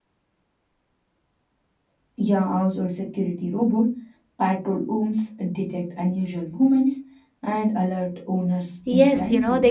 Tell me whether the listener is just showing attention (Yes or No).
No